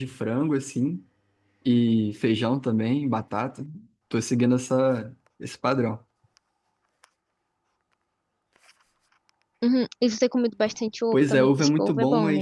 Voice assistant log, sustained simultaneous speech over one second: present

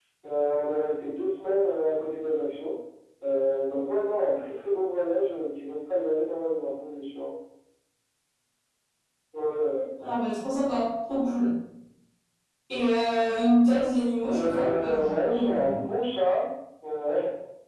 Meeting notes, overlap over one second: present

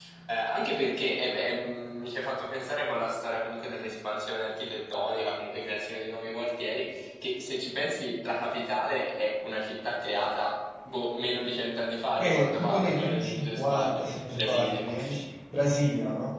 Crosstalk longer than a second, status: present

